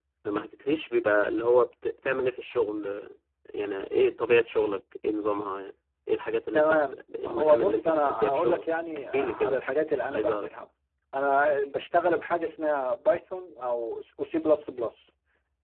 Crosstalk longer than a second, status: present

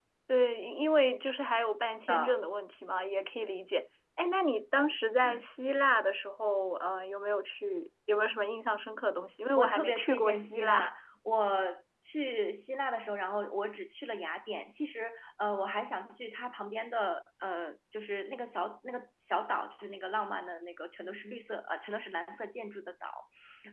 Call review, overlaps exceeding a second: present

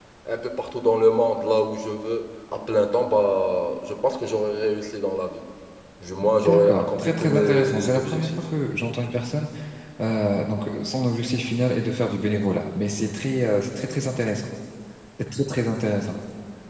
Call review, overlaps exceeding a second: present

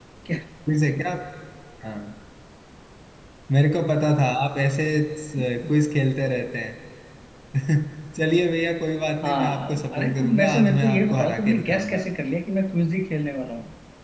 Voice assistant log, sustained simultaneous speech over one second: present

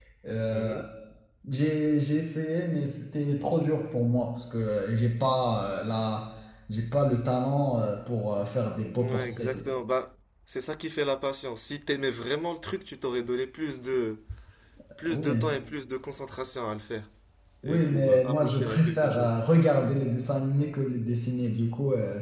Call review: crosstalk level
present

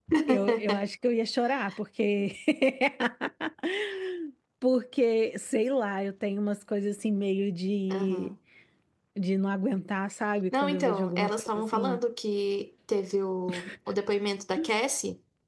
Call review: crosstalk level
present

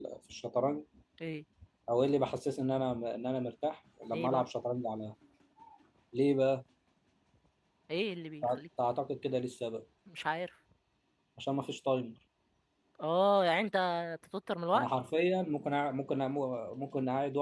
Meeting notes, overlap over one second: none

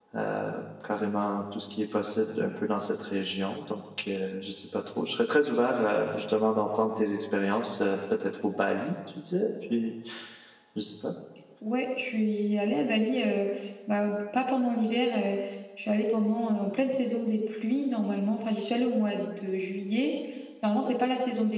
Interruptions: none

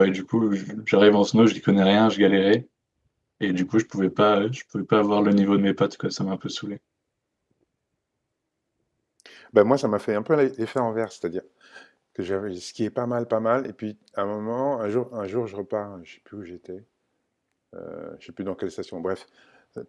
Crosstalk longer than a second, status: none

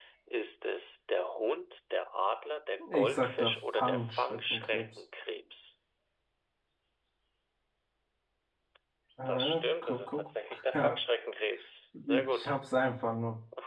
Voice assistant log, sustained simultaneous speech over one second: present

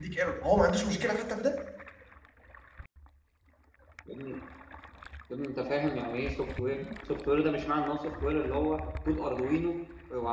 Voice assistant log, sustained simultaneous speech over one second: none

